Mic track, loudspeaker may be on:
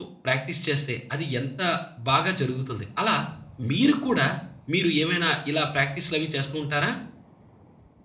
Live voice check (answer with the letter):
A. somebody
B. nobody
A